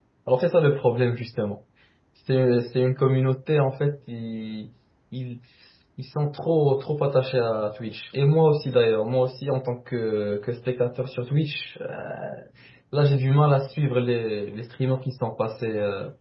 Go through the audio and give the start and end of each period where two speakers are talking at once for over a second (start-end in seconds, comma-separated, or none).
none